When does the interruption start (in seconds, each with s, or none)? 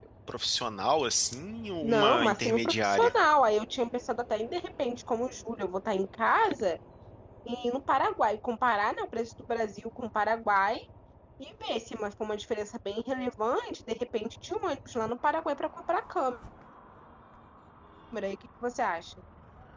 1.8 s